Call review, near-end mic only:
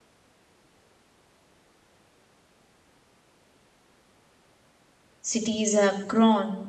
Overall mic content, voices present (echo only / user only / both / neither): user only